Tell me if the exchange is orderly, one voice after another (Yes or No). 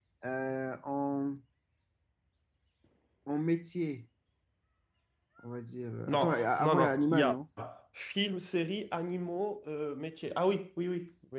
No